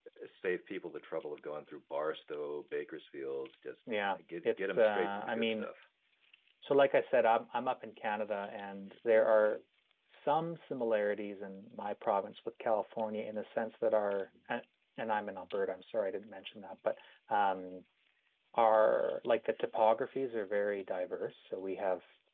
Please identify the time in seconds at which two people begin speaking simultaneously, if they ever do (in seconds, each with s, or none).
4.4 s